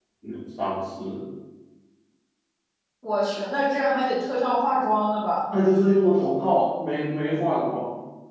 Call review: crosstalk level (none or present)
none